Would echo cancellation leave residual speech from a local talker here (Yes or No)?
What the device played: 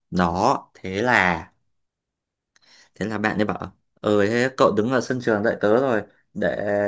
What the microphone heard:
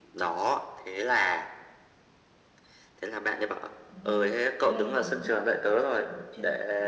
Yes